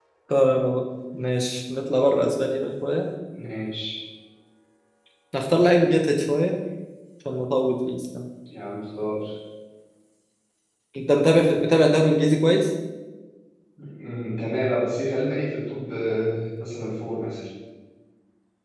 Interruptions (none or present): none